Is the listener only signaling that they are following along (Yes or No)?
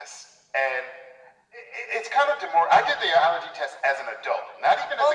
No